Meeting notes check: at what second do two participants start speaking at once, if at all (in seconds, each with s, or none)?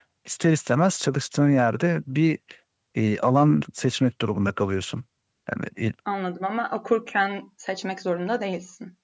none